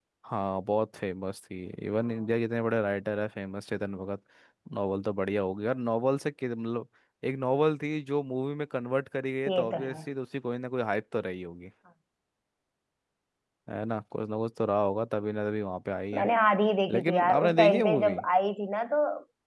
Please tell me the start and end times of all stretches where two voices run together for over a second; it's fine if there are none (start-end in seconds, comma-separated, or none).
16.9-18.2